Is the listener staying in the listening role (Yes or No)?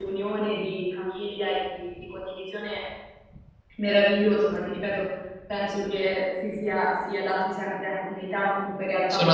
No